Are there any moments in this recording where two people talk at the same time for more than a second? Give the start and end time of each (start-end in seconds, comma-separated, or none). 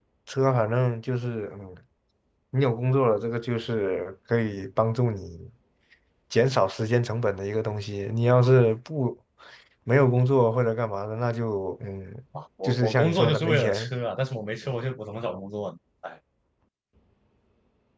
12.6-13.9